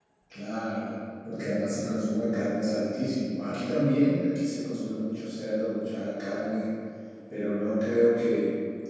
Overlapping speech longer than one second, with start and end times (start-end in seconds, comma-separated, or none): none